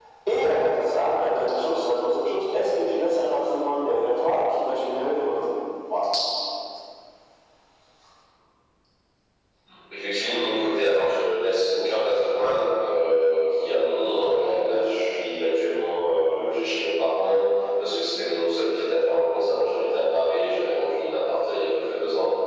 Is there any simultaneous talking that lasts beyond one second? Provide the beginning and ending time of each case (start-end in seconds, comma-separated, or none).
none